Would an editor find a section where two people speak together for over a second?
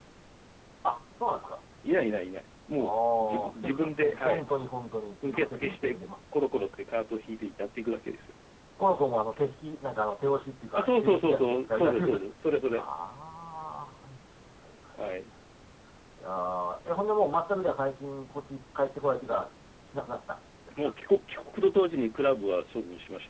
Yes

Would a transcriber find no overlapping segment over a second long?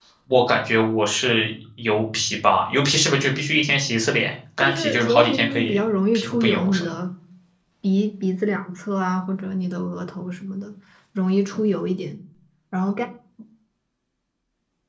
No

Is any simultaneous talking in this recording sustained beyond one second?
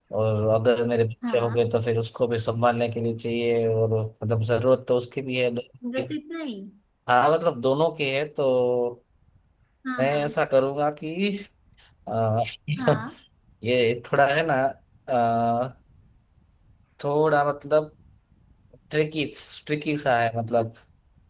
No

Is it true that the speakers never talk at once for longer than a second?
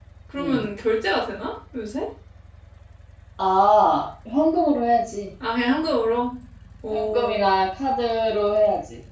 Yes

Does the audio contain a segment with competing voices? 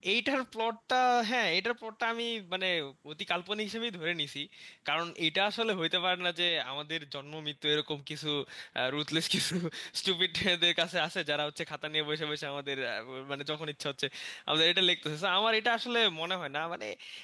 No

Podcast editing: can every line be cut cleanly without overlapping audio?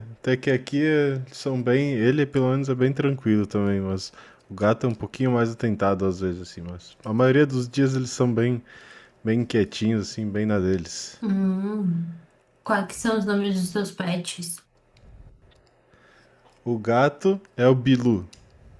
Yes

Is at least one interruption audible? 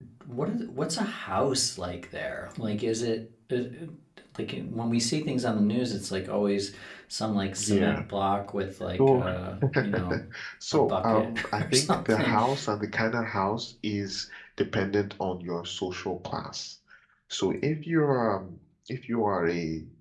Yes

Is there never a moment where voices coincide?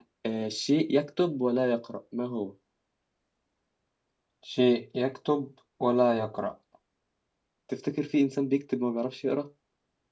Yes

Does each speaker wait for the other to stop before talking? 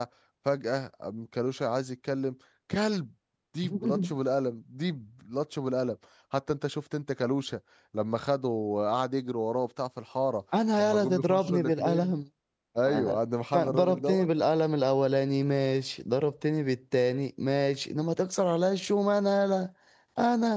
No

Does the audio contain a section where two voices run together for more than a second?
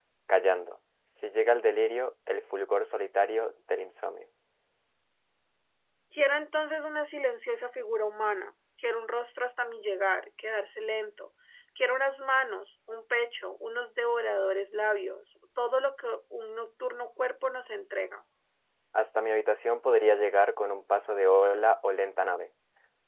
No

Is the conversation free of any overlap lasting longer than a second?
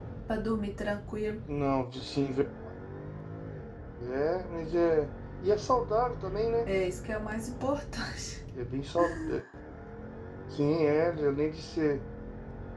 Yes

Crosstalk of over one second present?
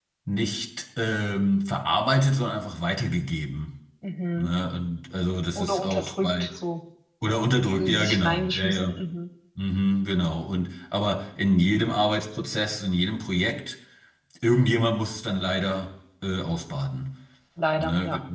Yes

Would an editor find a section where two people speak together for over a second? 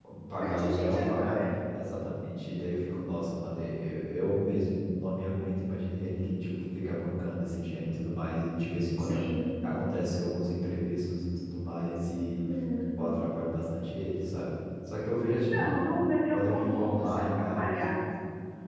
Yes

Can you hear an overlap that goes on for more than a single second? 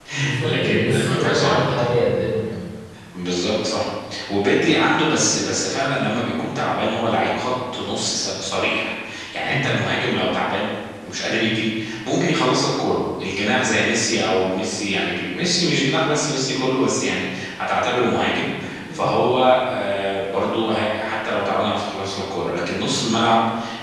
Yes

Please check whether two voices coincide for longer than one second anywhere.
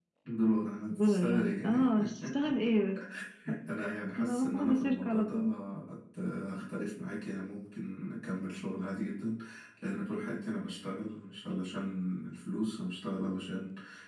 Yes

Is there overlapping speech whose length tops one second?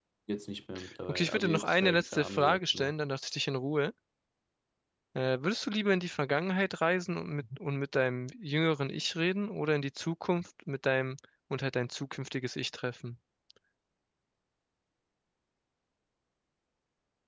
Yes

